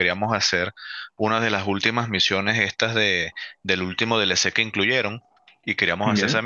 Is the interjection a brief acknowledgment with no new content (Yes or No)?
Yes